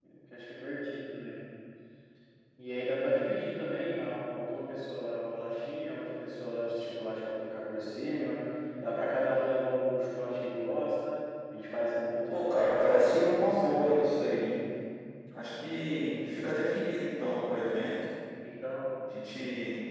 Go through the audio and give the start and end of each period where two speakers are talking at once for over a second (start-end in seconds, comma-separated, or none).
12.3-14.0